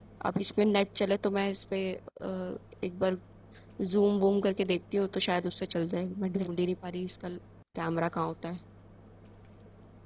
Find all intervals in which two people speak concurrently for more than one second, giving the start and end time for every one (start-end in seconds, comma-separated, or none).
none